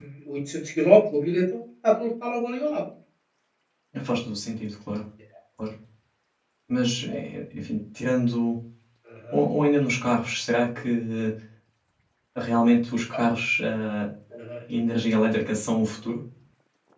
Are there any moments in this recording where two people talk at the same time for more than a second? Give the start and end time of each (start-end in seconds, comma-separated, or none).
none